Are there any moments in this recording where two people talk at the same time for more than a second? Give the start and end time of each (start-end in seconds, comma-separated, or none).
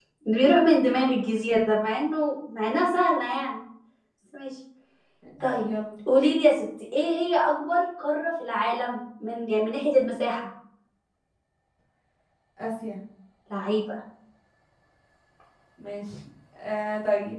none